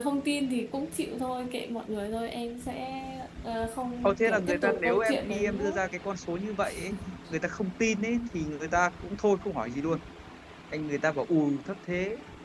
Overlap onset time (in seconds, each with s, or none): 4.0 s